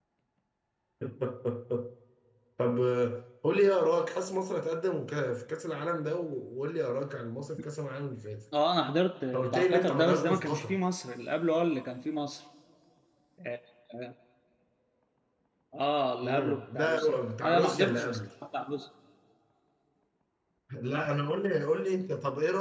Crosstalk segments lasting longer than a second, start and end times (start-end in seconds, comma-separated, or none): 9.3-10.8, 16.2-18.2